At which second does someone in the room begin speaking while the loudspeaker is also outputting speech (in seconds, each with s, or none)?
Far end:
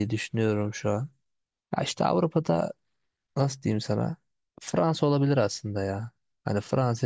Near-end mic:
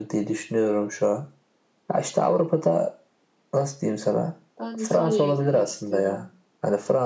4.6 s